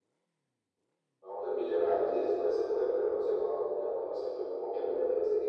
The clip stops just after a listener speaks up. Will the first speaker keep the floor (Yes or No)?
Yes